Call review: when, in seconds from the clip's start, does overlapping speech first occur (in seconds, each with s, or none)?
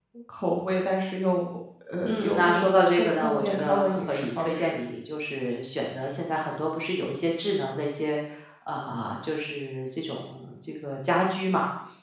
2.0 s